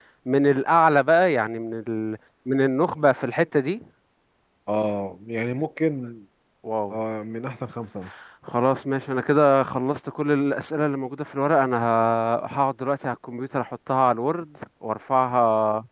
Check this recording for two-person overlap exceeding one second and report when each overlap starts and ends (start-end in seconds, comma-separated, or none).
none